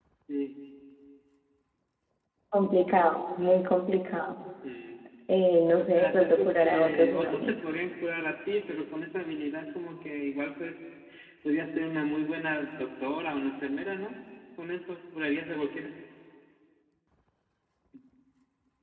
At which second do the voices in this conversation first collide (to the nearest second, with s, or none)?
6 s